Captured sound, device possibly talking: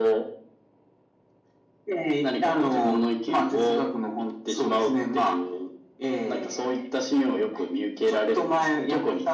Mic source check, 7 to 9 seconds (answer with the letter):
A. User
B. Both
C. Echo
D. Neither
C